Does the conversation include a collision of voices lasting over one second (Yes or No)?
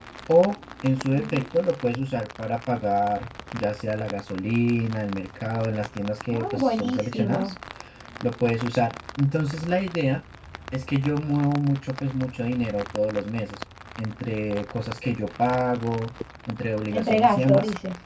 Yes